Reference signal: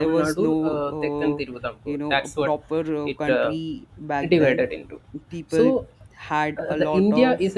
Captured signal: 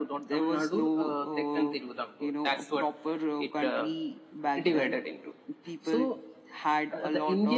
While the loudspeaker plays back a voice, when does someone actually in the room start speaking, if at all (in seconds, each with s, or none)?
none